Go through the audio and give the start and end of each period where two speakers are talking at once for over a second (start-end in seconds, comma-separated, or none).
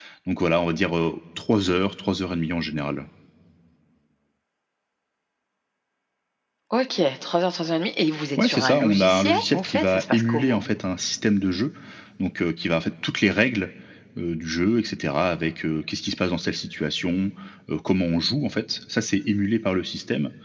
8.4-10.7